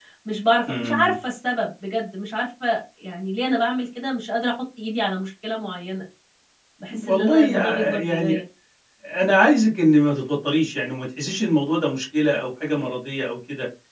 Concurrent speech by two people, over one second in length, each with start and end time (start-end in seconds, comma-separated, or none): 7.0-8.4